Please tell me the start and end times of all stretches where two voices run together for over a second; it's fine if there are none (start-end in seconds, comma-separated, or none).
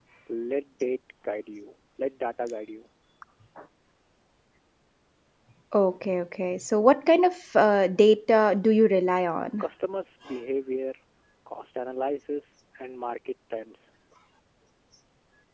none